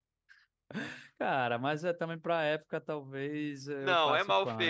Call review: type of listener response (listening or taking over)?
taking over